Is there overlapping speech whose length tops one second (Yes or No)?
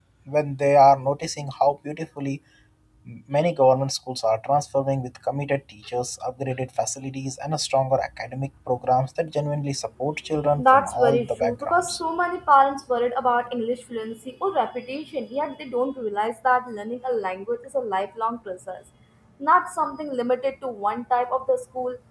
Yes